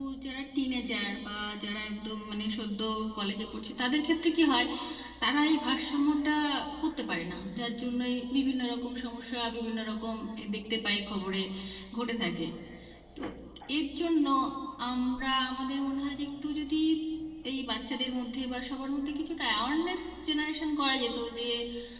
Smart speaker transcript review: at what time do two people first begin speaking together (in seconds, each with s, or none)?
none